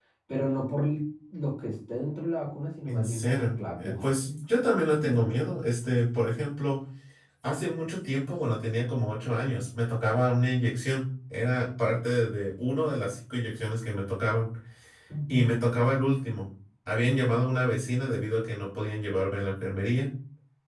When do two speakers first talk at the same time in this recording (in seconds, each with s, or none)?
2.9 s